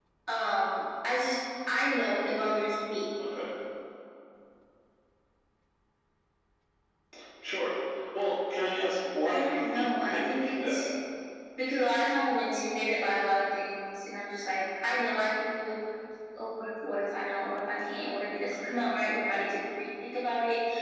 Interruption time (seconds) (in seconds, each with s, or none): 9.2 s